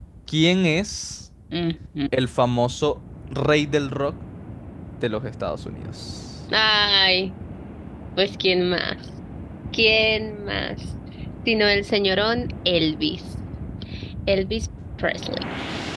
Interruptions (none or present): none